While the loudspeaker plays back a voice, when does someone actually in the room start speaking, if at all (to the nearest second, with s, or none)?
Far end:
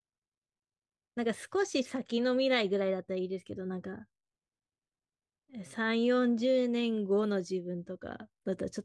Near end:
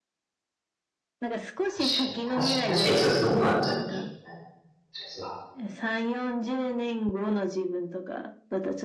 2 s